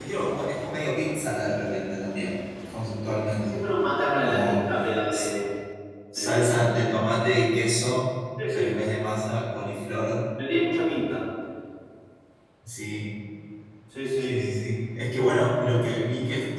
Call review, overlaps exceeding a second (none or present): none